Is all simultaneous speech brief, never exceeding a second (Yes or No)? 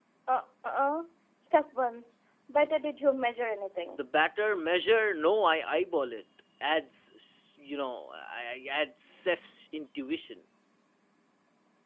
Yes